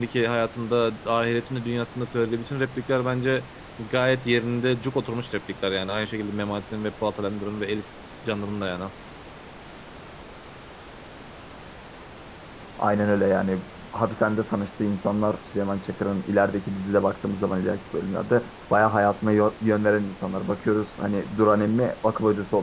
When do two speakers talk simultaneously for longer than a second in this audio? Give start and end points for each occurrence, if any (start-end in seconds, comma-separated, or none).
none